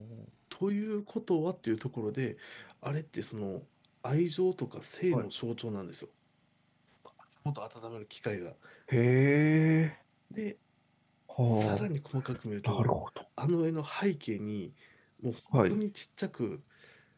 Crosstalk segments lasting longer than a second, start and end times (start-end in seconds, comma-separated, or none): none